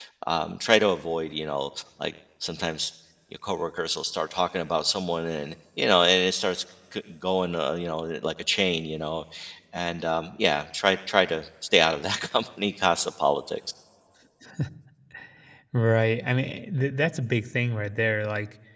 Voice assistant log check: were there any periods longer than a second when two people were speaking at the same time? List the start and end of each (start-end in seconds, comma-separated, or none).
none